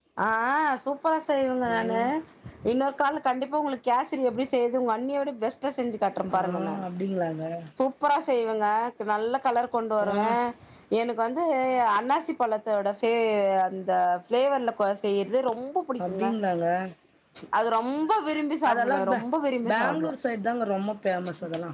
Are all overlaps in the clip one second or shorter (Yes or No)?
Yes